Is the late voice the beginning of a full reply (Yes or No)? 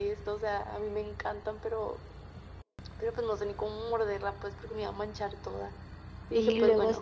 Yes